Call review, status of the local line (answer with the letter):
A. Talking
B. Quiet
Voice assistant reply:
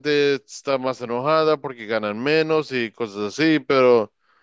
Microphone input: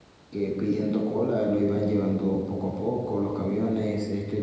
A